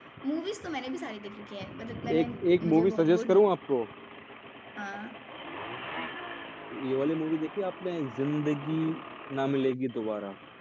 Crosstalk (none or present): present